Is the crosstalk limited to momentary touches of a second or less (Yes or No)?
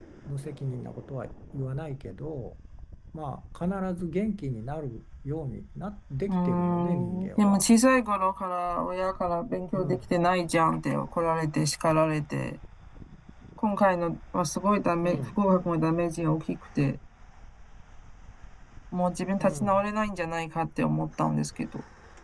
No